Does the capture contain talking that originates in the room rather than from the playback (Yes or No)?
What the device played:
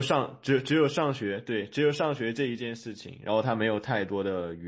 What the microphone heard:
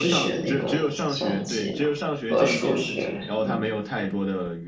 Yes